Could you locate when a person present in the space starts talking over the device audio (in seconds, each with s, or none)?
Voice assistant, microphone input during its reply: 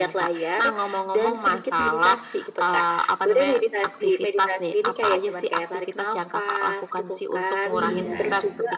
7.7 s